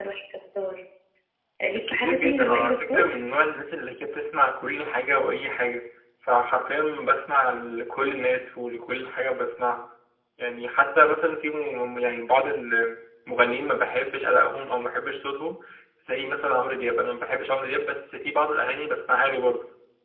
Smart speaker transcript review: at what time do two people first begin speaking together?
2 s

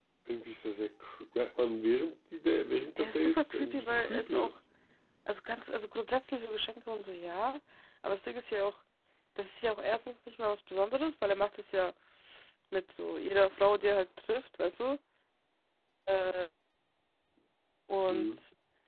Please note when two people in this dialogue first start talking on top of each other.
3 s

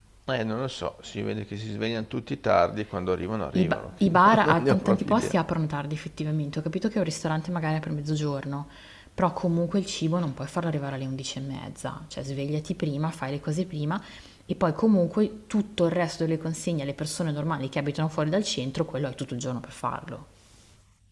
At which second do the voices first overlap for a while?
4 s

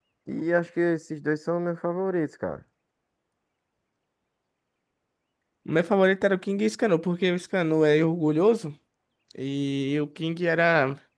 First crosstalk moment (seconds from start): none

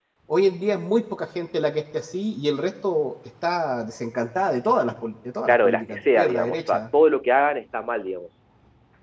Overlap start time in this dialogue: 5 s

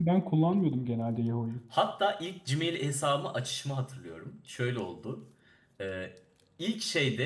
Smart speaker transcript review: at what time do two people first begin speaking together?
none

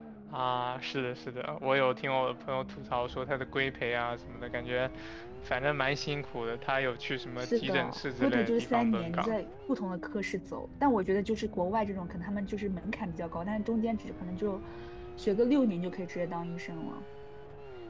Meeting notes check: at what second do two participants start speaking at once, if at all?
7 s

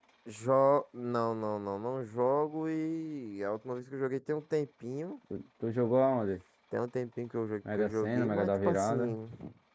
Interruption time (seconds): 8 s

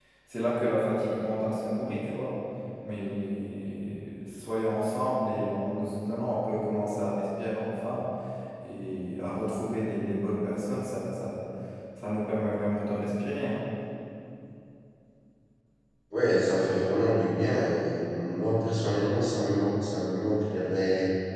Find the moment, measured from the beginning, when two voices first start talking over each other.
none

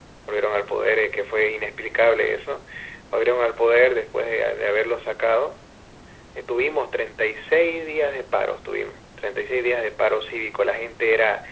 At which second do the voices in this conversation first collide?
none

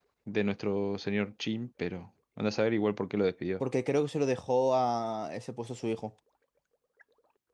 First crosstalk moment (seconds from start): none

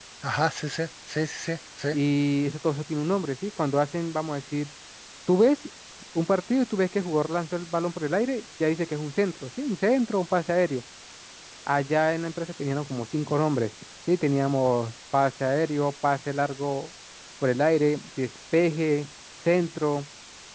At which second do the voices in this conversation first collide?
none

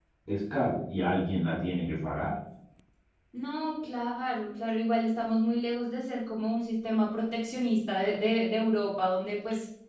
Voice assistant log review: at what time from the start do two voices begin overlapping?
none

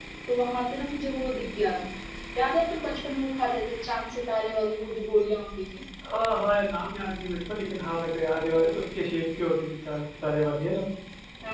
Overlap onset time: none

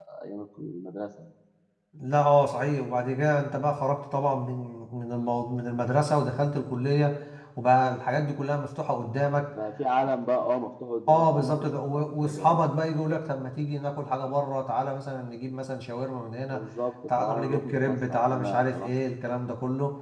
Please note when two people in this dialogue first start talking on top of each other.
11 s

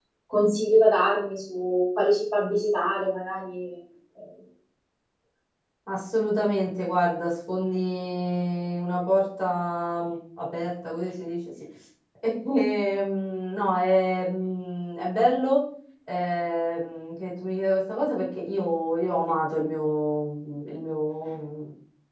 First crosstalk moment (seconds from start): none

